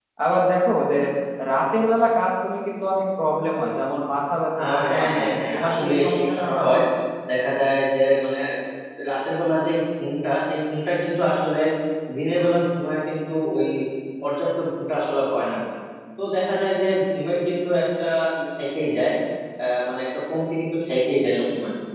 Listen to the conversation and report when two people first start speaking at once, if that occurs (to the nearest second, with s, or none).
5 s